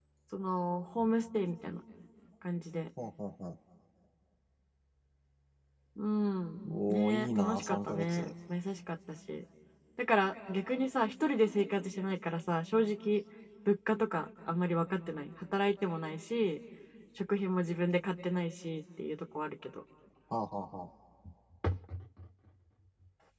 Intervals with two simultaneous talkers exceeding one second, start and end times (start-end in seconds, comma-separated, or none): 6.9-8.3